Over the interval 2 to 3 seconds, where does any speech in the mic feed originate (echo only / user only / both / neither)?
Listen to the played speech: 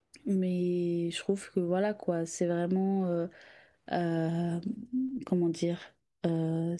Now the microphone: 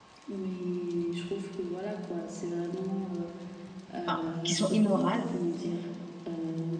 echo only